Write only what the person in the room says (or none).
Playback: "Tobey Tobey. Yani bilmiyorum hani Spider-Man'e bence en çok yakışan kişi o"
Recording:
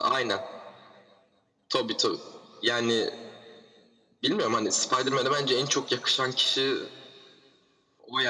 none